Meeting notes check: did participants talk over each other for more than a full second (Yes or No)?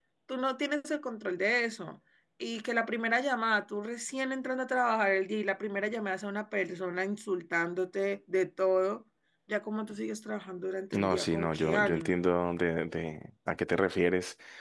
Yes